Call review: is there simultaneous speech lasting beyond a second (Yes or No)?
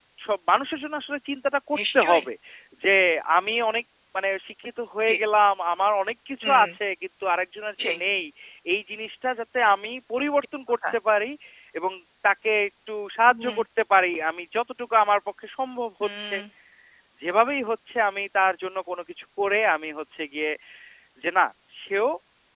No